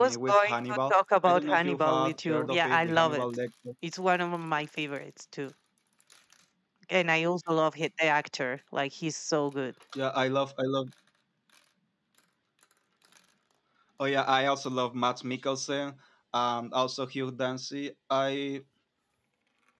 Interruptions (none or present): present